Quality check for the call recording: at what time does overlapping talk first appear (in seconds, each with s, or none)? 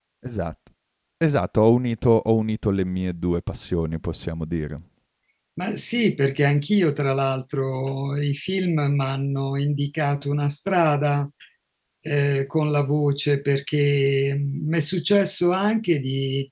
none